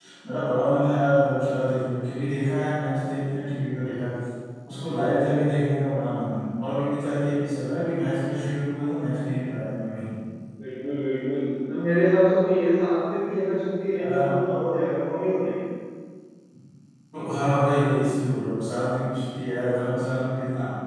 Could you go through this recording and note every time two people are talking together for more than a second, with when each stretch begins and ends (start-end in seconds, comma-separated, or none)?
none